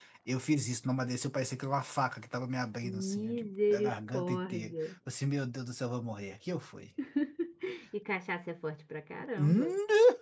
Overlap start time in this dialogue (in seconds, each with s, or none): 3.0 s